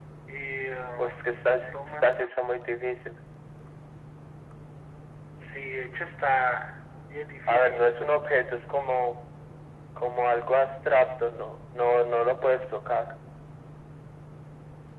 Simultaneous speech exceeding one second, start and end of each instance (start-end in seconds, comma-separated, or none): 1.0-2.3